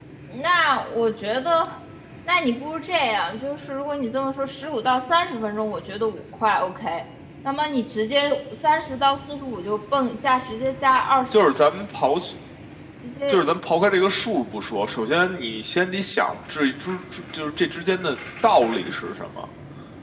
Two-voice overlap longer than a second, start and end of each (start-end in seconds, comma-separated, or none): none